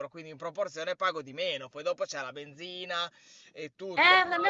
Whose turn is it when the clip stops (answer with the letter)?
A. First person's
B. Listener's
B